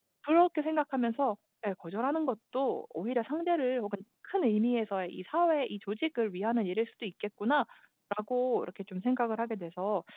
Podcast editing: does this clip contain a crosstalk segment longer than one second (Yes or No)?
No